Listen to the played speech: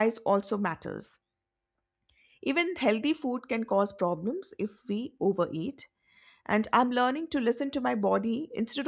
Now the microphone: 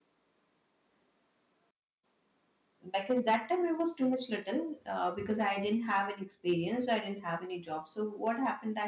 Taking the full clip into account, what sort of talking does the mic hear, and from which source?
user only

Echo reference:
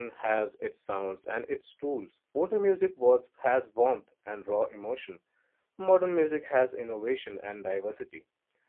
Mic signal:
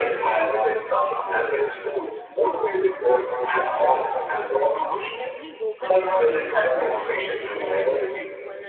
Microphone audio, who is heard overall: both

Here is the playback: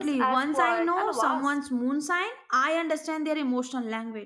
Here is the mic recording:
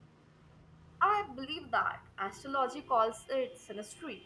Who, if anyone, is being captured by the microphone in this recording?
user only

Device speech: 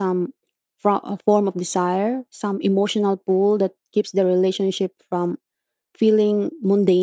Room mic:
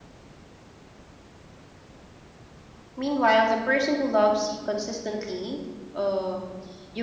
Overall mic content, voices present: user only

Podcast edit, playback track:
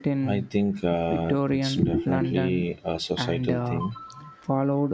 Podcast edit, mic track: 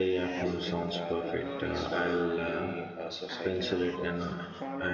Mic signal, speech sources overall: both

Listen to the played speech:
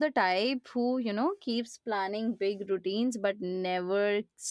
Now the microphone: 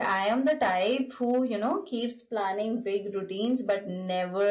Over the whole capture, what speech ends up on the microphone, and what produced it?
echo only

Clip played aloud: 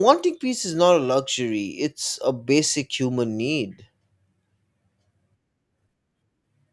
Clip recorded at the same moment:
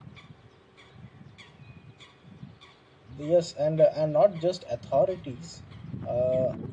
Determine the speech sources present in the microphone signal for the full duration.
user only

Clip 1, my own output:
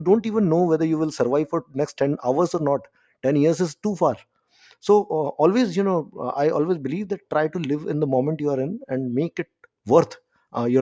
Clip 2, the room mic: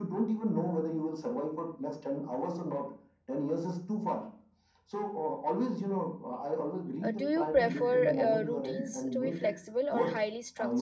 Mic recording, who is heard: both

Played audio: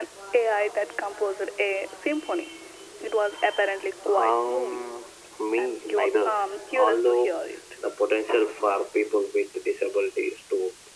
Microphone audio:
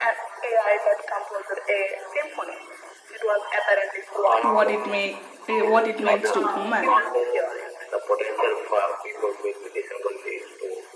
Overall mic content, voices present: both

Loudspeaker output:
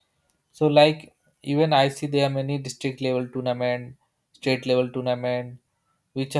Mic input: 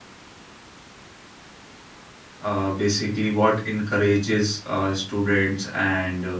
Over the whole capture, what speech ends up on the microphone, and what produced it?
user only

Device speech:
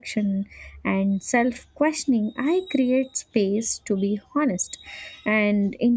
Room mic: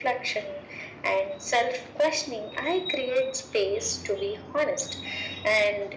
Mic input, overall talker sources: echo only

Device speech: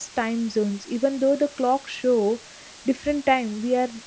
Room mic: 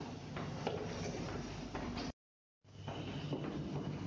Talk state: neither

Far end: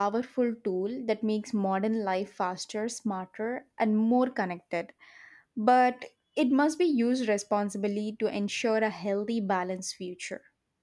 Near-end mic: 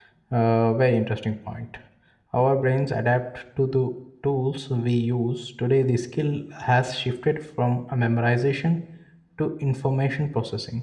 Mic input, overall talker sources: user only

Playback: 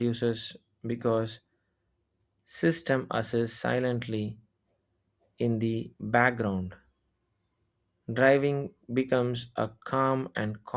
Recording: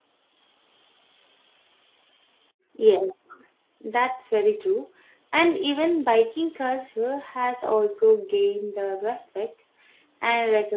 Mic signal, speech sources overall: user only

